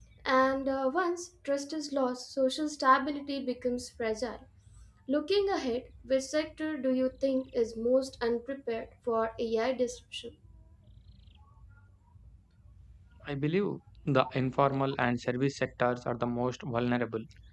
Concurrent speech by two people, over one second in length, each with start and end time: none

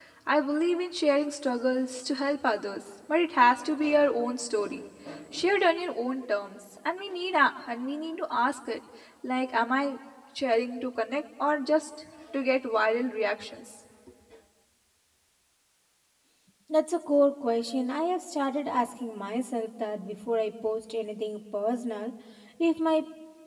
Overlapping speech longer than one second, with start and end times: none

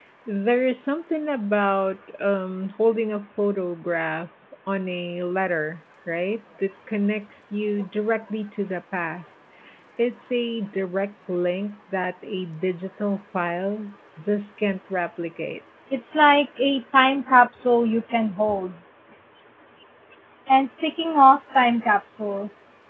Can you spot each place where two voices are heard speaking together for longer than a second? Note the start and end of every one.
none

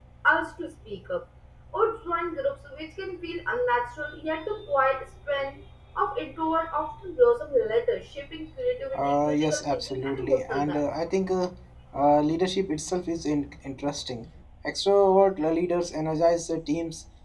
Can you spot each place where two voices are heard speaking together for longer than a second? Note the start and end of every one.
9.0-10.8

